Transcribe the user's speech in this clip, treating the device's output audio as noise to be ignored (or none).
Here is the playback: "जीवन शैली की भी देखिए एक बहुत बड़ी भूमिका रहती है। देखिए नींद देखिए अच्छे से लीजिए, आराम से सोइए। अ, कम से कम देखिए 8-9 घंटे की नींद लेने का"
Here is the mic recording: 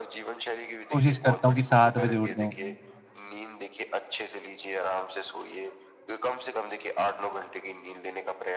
कोशिश करता हूँ कि 7 बजे उठ जाऊँ।